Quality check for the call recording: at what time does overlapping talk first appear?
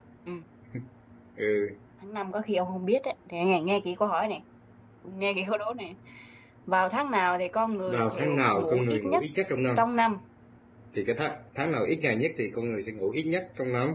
7.9 s

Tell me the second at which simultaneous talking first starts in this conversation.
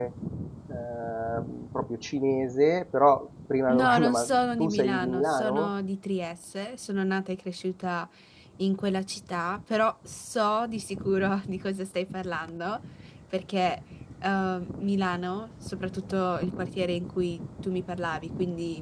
3.7 s

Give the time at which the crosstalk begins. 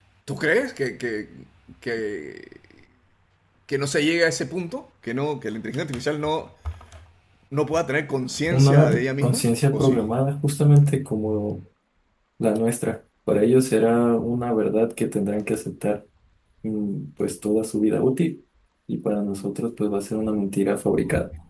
8.5 s

